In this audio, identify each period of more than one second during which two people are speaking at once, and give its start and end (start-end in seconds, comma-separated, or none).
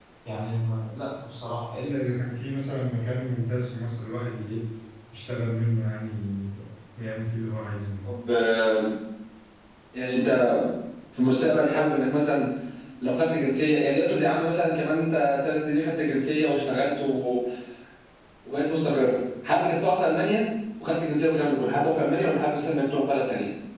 none